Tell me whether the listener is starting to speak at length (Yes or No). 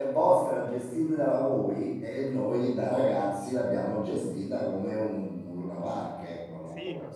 Yes